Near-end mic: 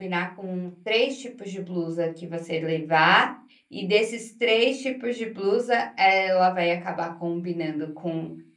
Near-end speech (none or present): present